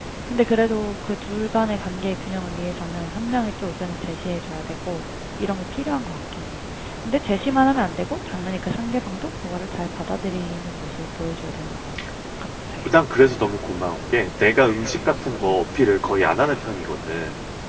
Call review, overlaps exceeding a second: none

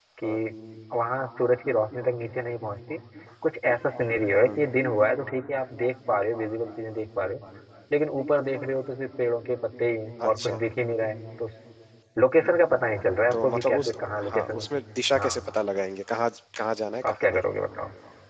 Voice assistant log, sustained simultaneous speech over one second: present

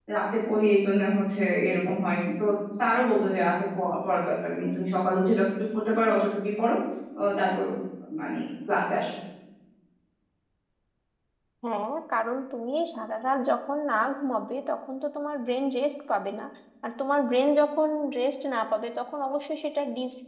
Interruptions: none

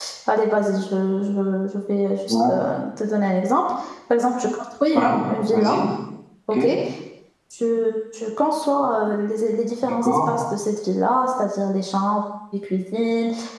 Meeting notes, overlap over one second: none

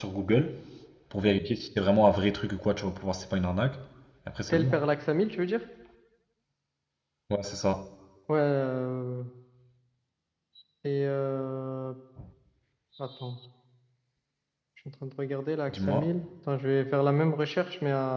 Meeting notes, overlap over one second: none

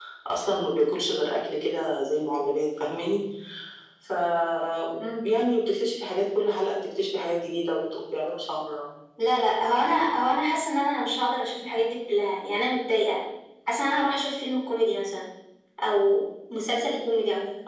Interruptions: none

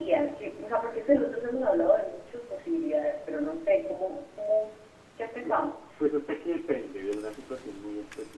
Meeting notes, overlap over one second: none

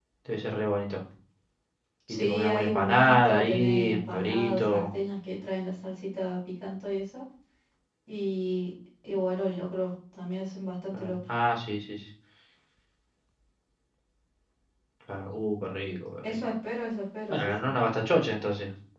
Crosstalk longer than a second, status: present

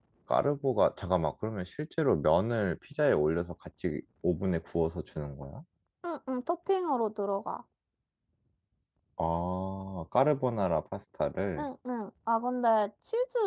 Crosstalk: none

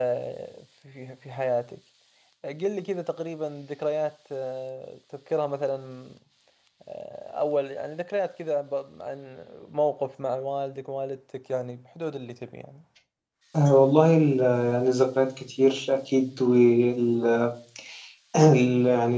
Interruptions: none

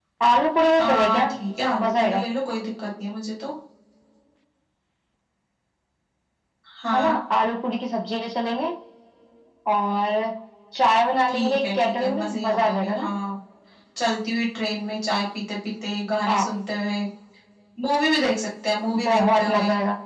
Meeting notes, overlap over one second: present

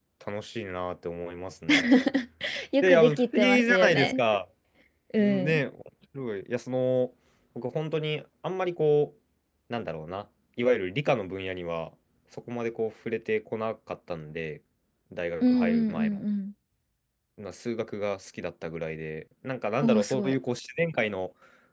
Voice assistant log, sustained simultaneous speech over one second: present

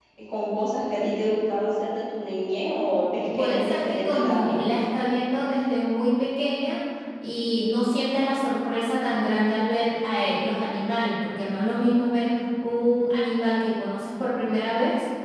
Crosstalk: present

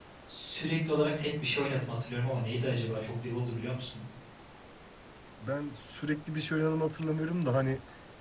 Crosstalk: none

